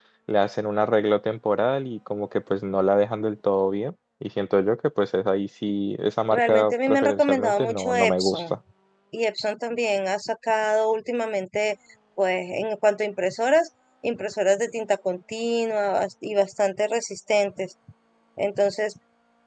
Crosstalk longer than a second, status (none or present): present